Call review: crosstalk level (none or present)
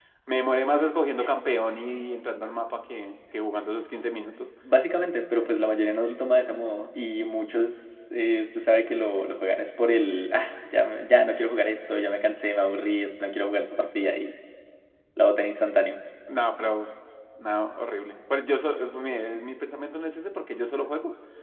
none